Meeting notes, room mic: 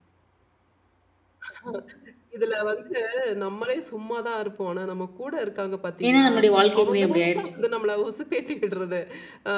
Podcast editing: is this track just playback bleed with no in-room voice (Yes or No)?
No